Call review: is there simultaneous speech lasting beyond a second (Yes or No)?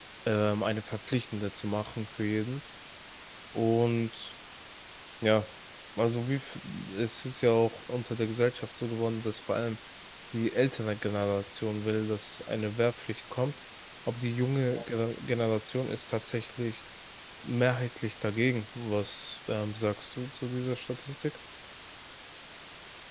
No